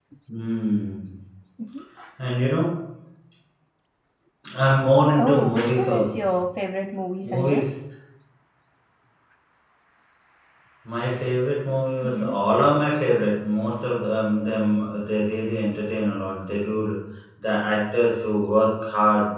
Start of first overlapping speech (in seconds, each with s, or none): 5.2 s